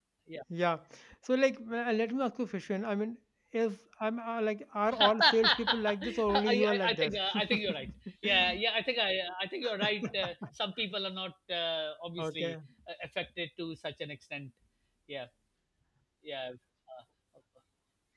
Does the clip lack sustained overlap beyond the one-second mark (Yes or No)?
No